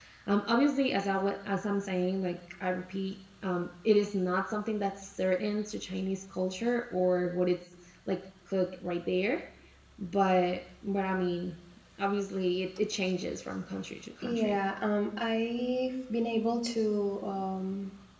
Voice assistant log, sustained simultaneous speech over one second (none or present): none